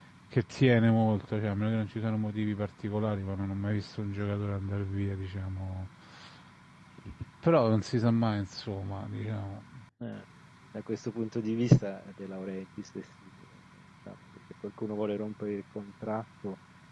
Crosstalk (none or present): none